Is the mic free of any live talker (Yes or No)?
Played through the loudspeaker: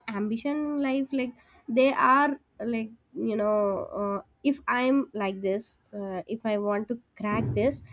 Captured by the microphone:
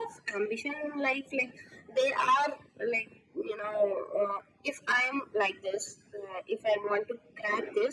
Yes